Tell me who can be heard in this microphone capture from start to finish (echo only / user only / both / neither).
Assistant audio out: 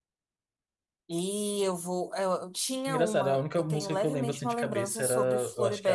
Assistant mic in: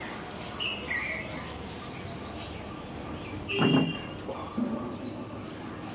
neither